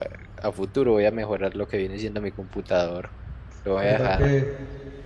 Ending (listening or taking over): taking over